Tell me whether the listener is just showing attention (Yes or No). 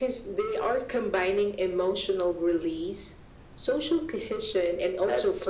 No